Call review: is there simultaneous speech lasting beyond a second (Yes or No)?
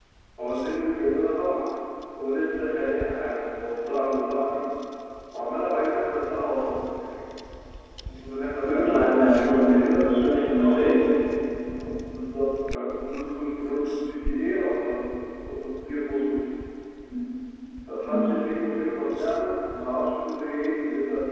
Yes